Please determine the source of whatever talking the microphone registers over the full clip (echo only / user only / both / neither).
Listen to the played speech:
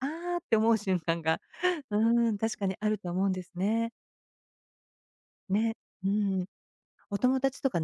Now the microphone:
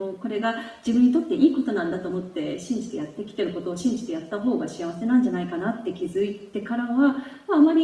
user only